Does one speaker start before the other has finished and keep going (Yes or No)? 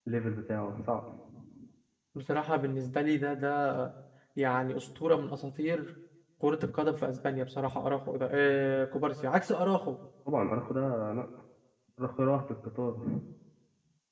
No